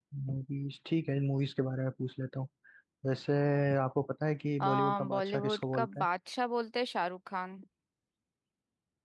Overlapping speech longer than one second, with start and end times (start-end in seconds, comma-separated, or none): 4.6-6.1